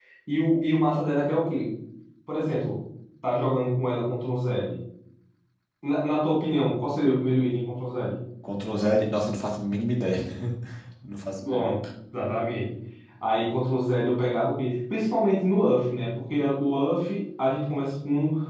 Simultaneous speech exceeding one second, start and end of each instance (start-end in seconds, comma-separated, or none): none